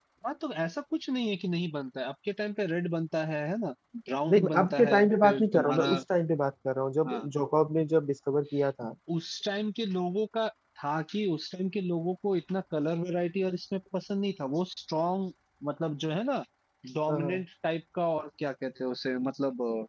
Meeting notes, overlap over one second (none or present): present